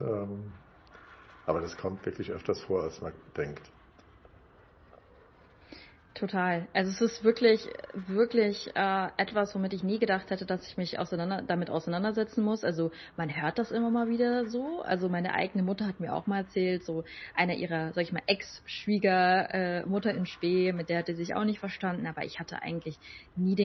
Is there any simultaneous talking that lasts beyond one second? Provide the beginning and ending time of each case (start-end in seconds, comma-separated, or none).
none